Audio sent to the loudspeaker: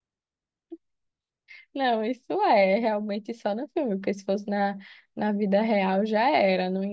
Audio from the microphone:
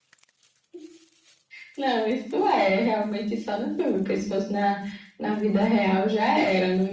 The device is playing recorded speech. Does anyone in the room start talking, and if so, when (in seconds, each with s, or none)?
none